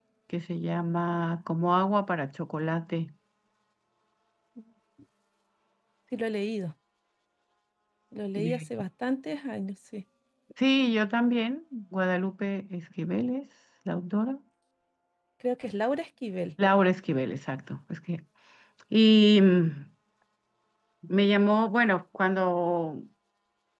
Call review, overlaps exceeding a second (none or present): none